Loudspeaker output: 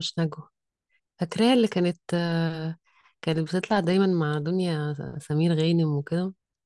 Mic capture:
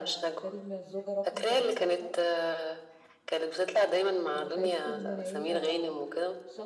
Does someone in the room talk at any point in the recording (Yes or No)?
Yes